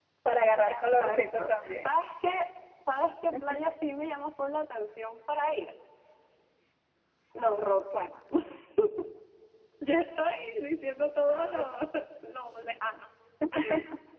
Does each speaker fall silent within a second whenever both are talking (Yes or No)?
No